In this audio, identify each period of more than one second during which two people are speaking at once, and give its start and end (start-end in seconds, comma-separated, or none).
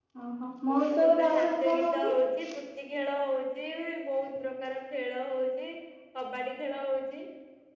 0.7-2.1